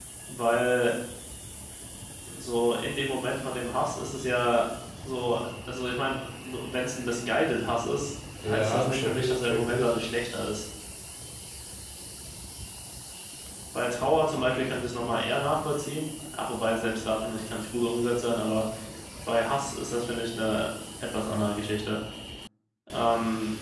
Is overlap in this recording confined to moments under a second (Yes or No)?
No